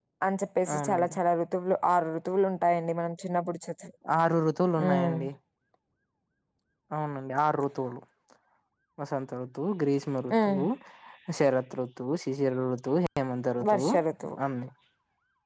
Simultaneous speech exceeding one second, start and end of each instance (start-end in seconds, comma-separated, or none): none